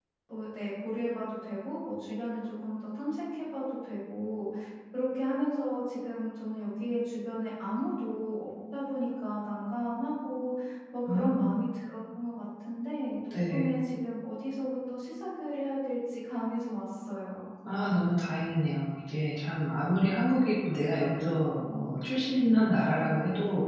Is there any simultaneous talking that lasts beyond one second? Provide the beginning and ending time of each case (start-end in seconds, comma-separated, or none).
none